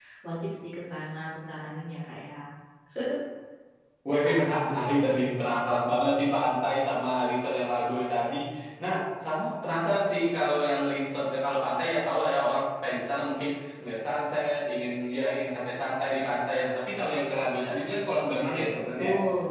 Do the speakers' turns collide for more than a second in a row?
No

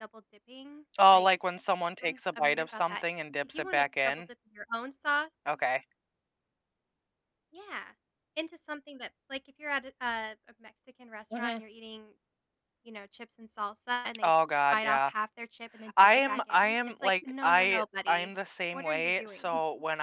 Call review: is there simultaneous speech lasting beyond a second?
Yes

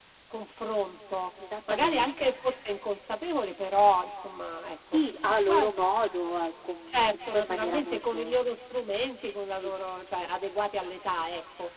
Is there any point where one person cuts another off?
Yes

